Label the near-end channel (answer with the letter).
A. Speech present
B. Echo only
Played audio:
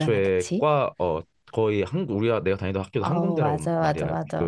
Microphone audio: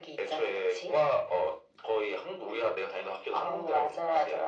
B